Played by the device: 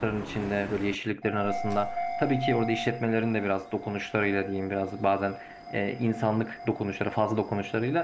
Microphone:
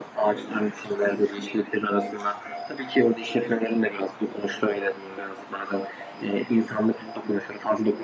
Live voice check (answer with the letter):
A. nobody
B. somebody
A